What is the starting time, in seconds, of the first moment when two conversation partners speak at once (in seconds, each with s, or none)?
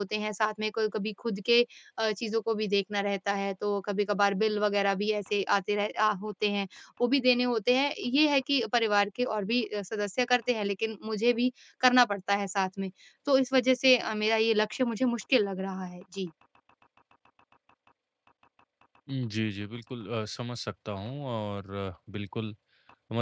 none